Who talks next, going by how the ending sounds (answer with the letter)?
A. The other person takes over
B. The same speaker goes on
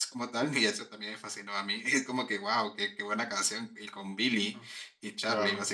B